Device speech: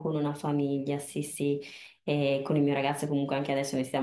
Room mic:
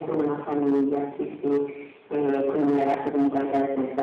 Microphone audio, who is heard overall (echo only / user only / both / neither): echo only